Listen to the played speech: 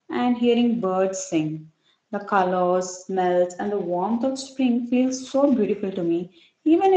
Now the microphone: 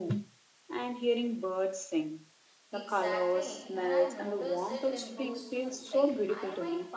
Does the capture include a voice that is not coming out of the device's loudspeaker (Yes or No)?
Yes